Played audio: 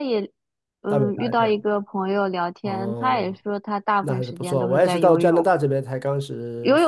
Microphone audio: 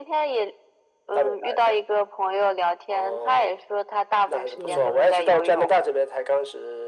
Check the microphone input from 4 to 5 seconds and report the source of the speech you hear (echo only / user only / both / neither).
both